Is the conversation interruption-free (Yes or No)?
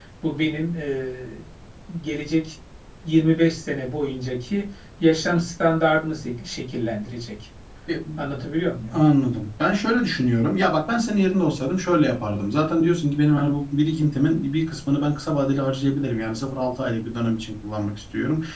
Yes